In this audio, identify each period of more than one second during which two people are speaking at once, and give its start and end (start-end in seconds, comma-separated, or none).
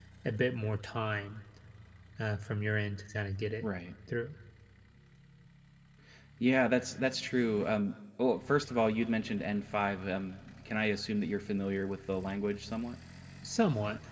none